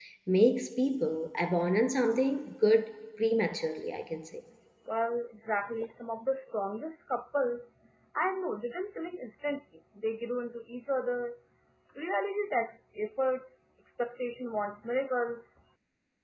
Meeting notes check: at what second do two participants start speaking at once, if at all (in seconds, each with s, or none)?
none